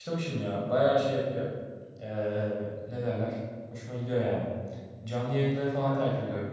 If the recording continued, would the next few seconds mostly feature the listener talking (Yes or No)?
No